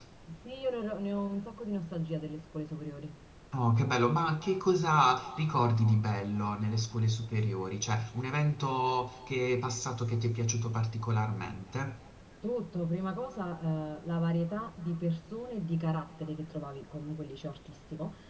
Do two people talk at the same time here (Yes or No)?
No